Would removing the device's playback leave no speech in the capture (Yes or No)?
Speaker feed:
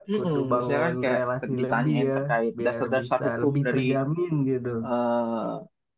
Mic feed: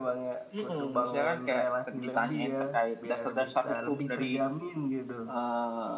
Yes